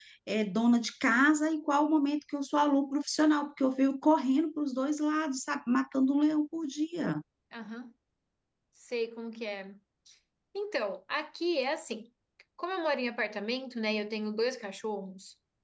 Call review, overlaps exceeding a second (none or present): none